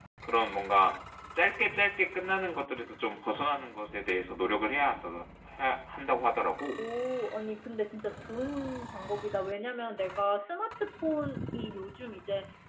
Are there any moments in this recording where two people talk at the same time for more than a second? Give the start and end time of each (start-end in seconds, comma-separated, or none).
none